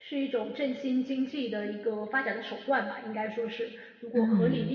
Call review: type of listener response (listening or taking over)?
taking over